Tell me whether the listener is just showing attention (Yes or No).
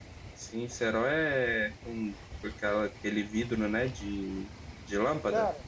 No